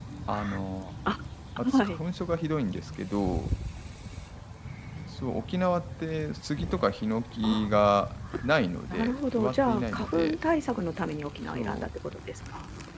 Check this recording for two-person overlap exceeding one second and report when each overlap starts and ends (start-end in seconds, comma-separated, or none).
8.9-10.4